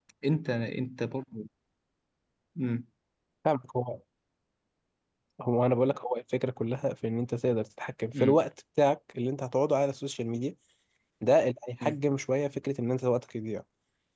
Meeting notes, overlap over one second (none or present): none